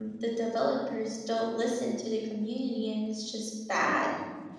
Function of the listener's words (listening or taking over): taking over